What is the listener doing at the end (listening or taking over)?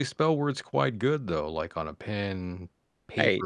listening